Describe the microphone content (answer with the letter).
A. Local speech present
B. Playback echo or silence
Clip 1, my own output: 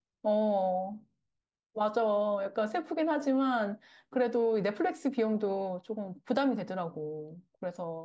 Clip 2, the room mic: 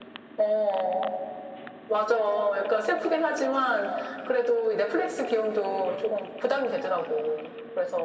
B